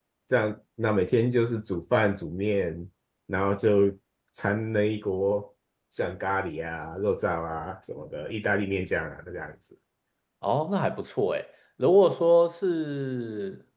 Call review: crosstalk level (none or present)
none